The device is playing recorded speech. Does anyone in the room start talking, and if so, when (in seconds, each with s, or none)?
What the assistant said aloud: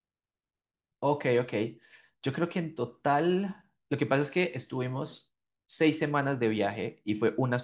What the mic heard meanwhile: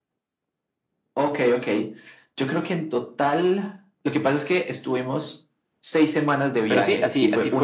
6.7 s